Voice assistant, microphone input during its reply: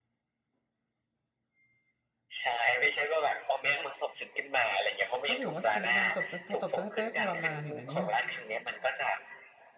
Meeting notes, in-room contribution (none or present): present